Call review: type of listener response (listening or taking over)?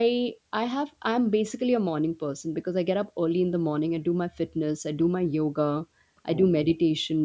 listening